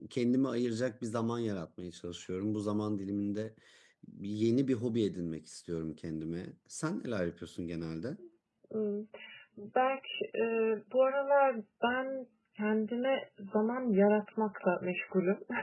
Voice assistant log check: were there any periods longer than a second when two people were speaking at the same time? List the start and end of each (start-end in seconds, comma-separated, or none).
none